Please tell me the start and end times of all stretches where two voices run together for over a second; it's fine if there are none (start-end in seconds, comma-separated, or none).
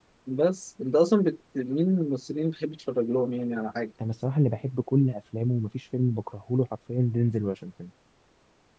none